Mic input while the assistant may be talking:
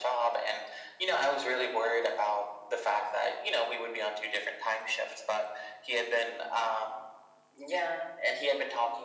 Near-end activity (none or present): none